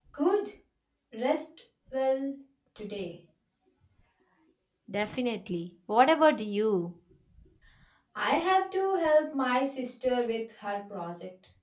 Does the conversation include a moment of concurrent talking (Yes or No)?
No